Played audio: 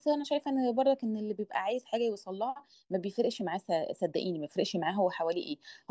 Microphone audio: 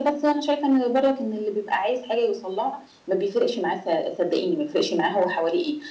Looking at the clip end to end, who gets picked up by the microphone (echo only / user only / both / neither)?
echo only